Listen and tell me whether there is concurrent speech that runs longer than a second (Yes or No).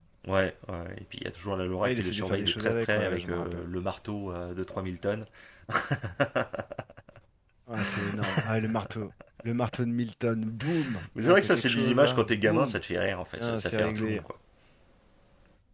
Yes